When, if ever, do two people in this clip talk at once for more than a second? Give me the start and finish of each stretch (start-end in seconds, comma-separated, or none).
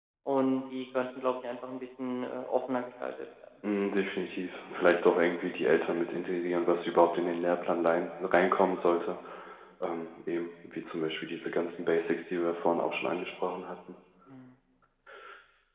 none